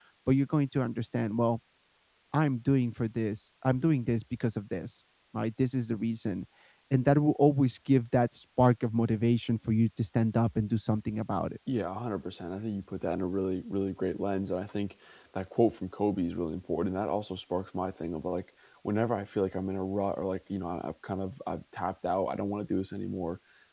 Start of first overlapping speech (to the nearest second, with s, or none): none